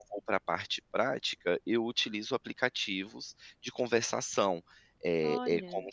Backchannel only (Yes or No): Yes